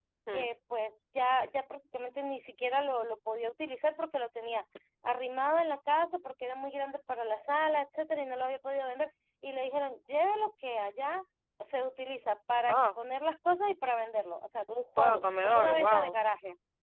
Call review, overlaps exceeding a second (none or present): present